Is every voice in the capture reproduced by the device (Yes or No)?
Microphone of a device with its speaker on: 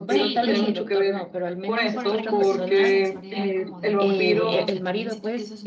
No